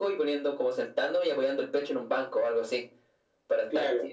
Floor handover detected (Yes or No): No